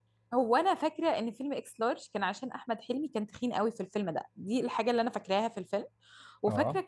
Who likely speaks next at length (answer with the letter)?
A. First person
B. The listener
A